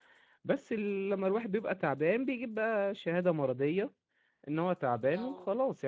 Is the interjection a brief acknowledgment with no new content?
Yes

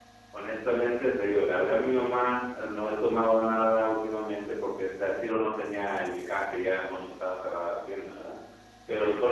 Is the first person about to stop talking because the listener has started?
No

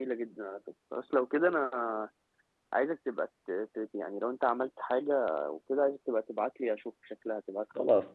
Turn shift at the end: Yes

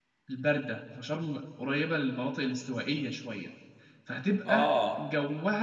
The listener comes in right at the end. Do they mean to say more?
No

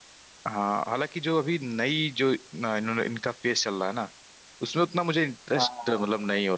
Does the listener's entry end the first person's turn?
No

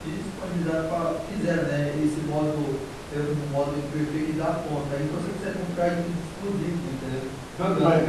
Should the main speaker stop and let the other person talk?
Yes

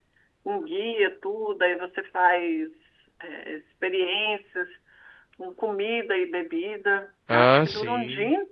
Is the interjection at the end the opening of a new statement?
No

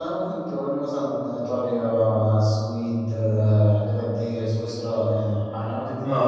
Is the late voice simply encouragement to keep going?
No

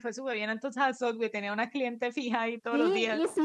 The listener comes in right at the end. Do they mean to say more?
Yes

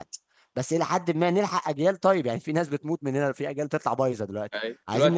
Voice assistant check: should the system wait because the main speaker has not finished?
No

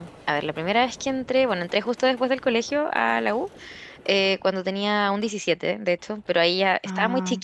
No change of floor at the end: Yes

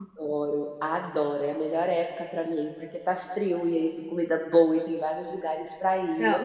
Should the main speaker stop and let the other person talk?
Yes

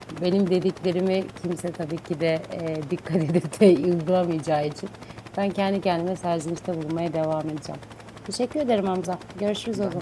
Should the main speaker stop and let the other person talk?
Yes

